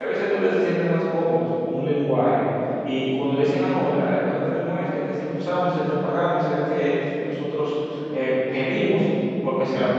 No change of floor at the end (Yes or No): Yes